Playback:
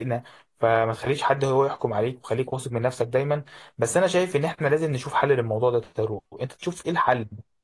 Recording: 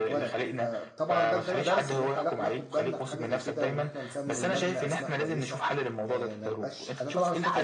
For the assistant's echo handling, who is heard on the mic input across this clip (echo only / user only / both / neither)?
both